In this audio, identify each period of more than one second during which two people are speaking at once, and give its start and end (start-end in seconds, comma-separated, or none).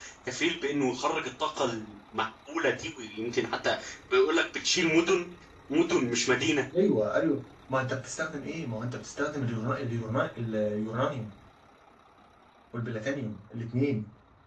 none